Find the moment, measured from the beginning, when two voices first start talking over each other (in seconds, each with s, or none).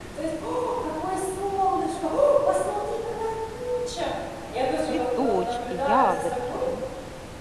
4.9 s